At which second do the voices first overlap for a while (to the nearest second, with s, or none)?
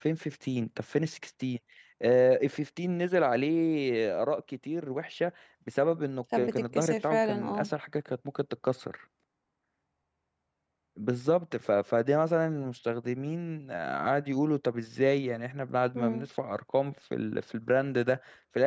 6 s